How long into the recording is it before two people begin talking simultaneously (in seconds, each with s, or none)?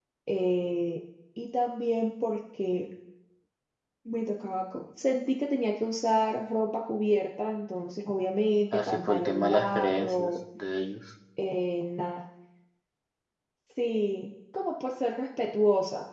8.7 s